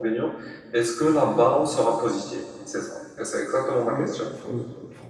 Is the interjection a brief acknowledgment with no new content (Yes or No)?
No